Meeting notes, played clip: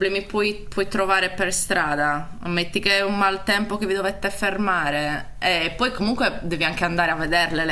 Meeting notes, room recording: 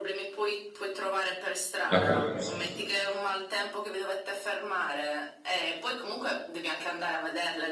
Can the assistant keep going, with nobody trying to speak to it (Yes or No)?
No